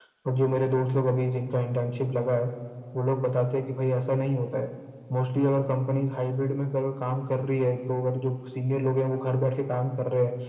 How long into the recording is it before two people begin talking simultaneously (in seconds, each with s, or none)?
none